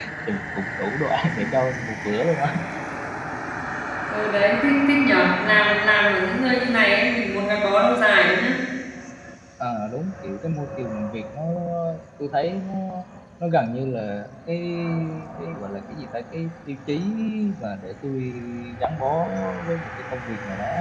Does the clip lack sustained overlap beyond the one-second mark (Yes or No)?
Yes